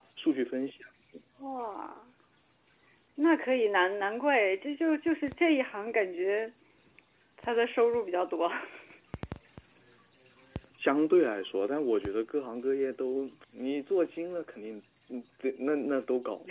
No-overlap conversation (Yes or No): Yes